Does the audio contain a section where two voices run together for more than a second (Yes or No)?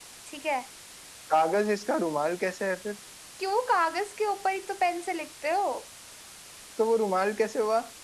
No